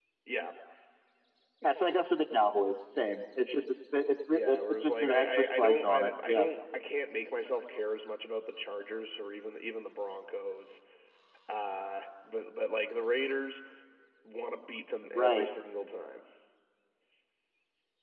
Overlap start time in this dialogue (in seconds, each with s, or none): 4.3 s